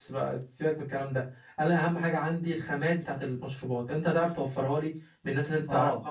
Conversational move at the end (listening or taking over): taking over